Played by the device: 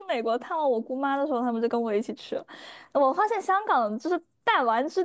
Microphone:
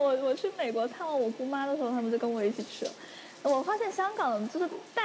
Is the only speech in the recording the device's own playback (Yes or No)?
Yes